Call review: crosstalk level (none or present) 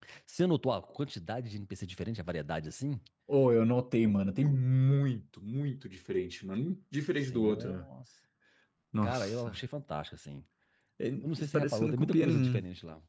present